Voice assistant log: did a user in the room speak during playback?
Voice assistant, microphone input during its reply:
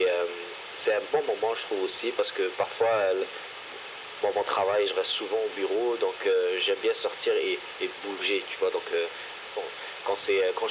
No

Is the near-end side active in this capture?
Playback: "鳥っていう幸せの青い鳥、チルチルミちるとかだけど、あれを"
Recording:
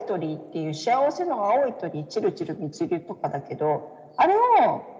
No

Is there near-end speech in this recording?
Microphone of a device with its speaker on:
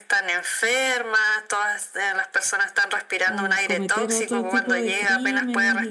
Yes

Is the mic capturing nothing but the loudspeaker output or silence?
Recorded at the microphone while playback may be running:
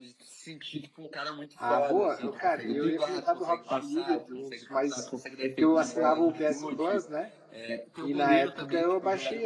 No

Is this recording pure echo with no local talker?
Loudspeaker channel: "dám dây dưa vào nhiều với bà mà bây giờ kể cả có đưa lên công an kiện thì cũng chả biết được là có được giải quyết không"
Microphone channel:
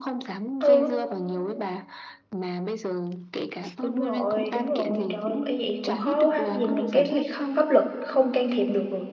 No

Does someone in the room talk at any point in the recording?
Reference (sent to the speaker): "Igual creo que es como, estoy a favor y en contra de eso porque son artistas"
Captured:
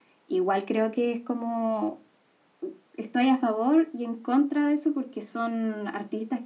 No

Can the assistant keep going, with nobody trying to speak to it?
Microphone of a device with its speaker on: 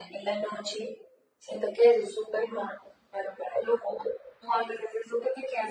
Yes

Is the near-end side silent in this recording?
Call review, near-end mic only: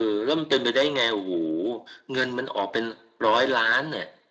Yes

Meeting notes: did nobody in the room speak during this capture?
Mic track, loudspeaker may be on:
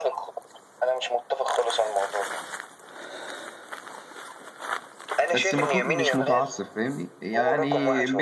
No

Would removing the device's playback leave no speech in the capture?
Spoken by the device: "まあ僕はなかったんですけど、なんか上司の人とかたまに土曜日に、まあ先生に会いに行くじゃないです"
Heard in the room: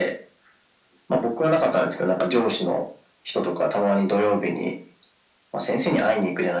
Yes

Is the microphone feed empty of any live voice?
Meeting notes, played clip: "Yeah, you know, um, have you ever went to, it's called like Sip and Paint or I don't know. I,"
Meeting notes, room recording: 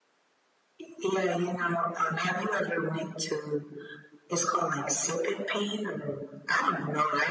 Yes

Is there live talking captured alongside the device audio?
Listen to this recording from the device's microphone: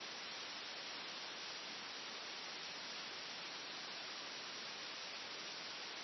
No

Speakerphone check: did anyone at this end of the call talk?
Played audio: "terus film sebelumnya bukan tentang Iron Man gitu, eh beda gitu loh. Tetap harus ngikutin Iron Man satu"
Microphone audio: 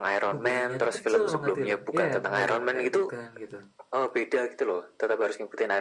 Yes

